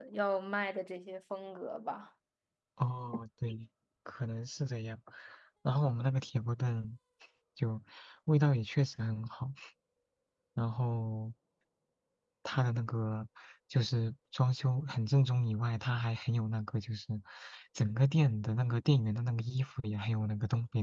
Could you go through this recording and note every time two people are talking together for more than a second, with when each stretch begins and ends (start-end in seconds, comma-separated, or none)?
none